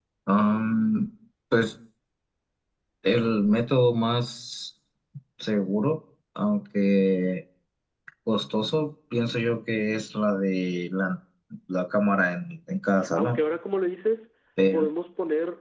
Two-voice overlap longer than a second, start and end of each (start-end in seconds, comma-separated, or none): none